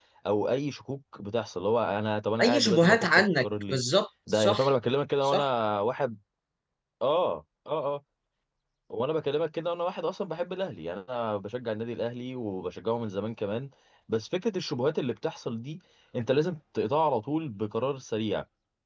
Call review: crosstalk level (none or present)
present